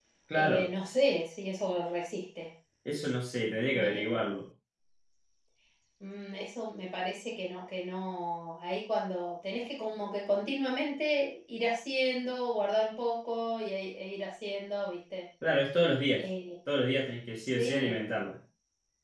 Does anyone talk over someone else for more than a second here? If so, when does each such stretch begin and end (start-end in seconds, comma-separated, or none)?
none